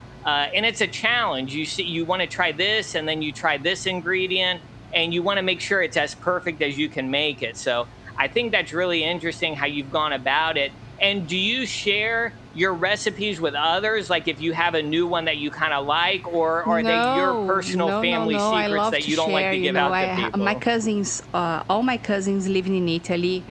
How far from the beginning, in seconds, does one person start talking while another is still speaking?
16.7 s

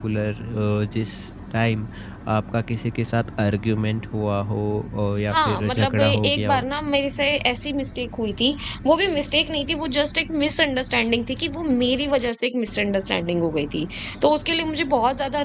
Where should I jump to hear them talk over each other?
5.3 s

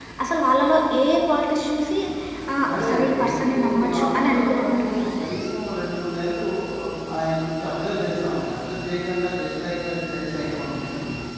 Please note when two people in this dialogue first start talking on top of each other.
2.8 s

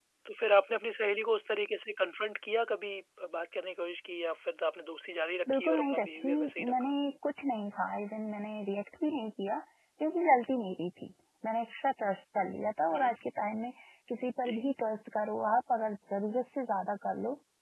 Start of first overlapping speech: 5.5 s

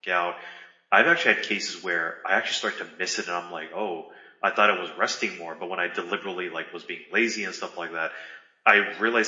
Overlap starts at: none

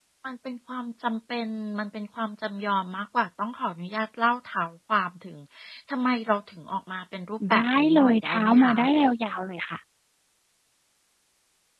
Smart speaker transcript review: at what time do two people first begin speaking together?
7.4 s

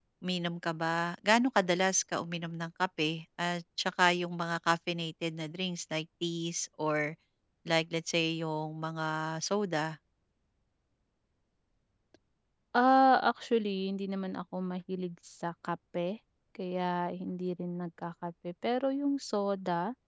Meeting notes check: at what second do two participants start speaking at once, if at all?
none

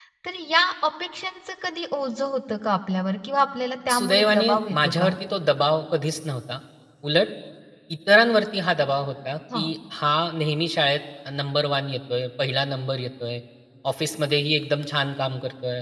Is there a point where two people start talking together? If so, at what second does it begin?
3.9 s

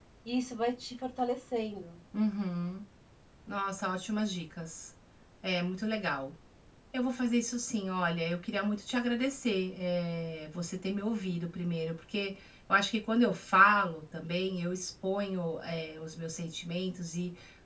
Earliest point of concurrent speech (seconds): none

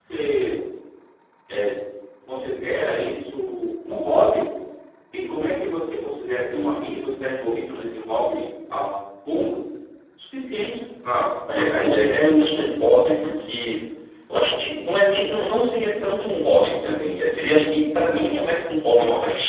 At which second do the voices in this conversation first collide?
11.5 s

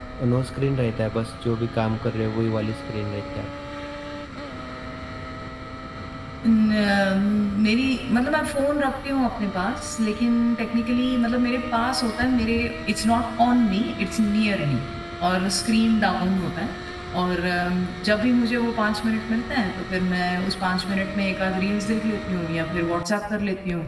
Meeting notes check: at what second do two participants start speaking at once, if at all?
none

